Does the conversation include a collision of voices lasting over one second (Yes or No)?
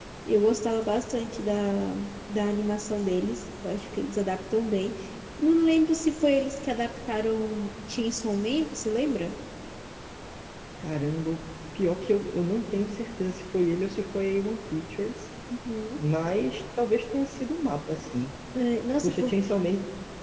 No